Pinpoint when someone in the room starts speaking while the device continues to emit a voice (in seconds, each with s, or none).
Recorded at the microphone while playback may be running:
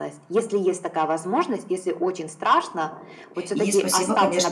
3.5 s